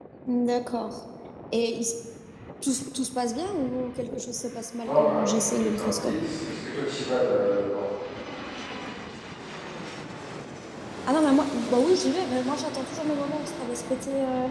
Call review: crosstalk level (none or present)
present